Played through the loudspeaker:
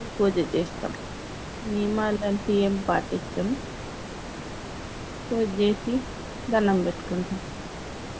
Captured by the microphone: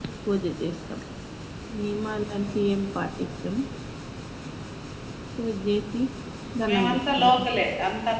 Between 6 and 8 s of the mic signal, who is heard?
both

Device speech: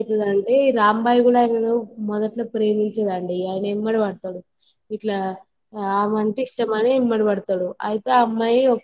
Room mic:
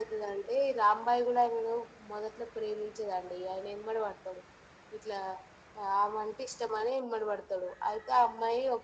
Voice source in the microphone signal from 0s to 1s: echo only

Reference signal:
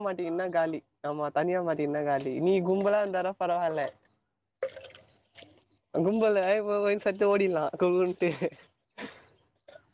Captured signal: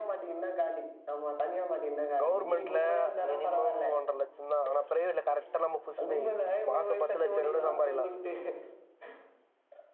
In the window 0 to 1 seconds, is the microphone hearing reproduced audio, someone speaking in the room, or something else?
echo only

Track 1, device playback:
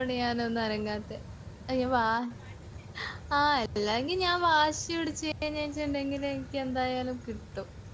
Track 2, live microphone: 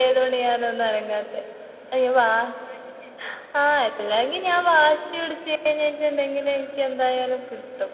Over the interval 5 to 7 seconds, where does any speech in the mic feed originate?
echo only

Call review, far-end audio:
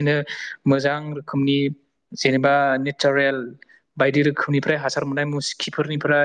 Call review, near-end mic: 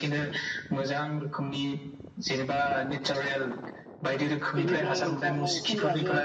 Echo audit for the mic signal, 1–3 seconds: echo only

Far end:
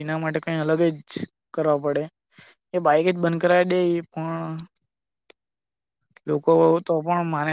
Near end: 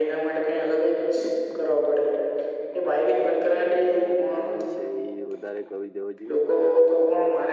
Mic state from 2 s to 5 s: both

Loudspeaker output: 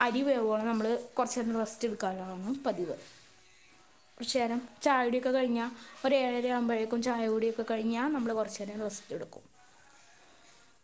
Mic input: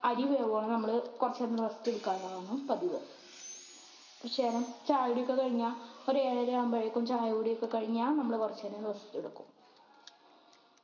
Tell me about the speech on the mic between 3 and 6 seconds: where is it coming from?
echo only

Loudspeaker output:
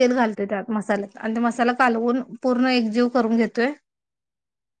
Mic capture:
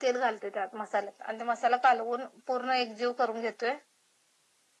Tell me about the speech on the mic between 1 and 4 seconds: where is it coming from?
echo only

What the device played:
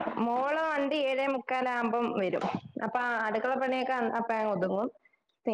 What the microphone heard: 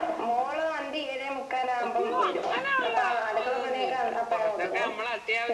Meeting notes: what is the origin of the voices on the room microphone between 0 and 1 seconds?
echo only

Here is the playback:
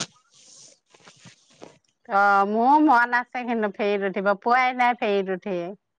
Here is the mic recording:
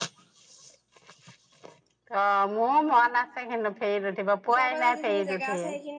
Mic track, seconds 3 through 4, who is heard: echo only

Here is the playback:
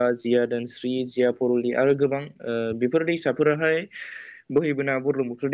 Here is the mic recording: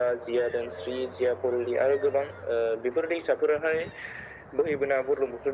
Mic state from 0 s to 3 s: echo only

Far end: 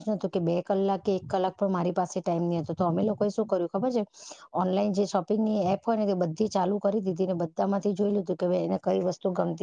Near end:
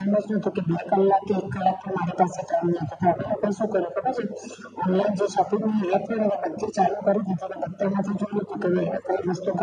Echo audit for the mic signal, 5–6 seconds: echo only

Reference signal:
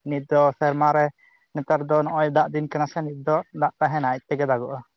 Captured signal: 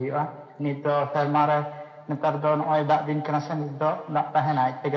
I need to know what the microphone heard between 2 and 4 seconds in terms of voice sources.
echo only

